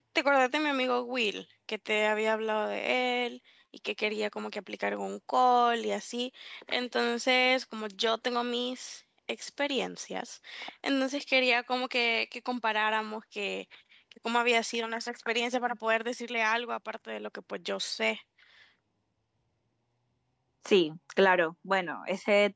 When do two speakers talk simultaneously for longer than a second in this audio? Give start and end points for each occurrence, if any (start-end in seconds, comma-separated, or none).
none